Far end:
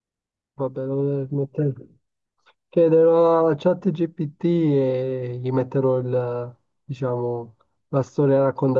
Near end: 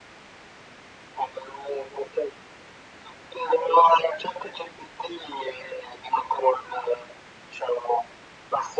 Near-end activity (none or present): none